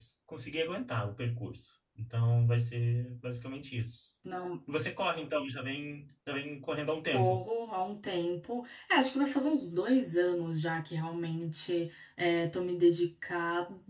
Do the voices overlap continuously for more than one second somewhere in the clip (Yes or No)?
No